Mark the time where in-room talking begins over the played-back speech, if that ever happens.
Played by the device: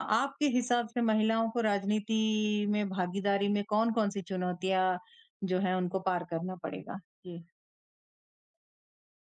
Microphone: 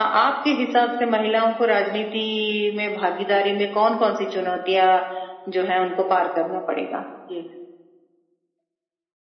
none

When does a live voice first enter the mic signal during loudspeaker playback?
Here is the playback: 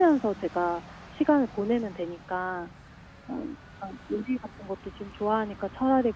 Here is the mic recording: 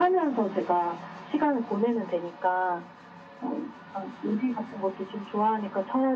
none

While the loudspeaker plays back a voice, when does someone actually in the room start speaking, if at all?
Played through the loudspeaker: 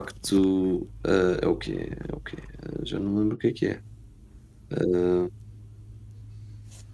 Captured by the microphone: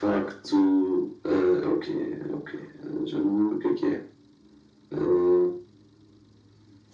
none

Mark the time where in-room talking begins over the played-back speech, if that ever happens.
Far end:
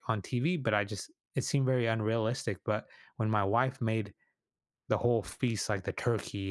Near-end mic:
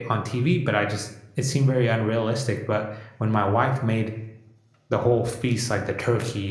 none

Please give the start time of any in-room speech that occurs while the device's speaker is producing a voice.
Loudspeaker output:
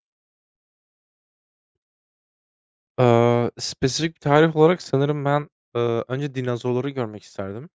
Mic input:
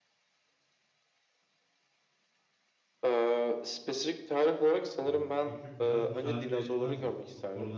5.0 s

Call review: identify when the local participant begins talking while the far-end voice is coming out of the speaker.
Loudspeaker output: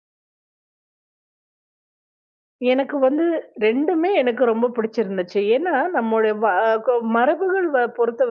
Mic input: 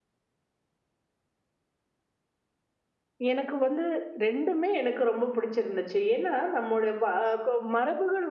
none

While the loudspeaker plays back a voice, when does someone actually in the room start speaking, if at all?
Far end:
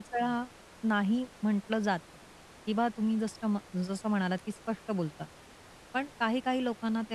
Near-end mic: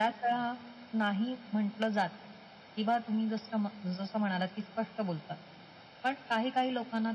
none

